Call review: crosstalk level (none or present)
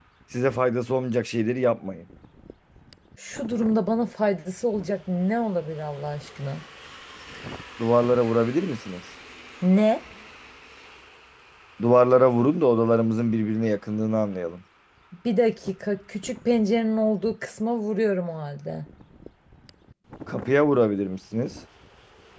none